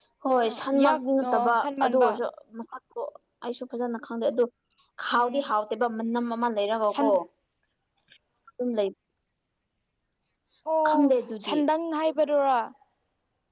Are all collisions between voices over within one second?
No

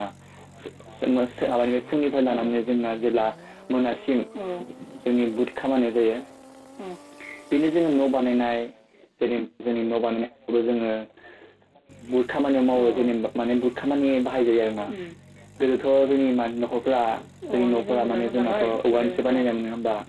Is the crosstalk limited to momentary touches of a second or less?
No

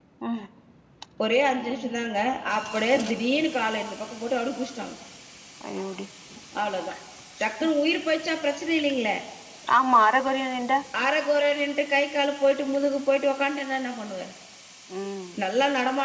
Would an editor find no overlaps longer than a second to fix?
Yes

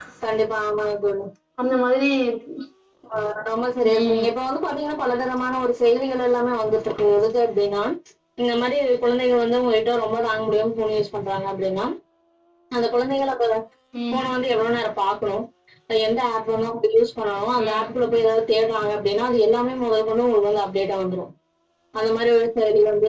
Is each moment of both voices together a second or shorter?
Yes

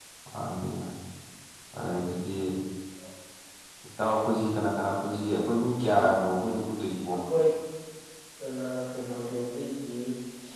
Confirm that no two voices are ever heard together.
Yes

